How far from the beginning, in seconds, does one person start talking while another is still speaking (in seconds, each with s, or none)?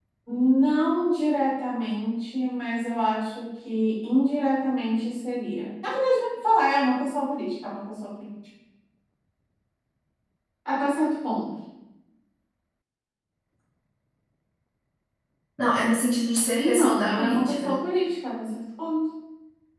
16.6 s